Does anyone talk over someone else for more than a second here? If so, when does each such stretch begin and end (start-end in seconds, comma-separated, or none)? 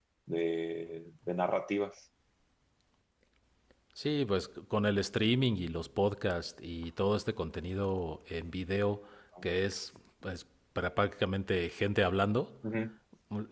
none